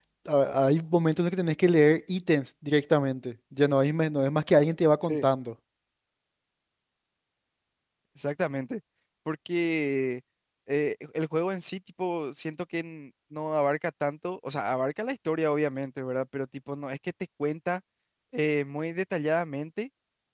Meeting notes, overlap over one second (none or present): none